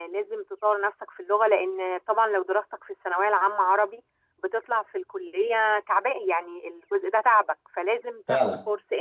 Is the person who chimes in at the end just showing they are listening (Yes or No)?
Yes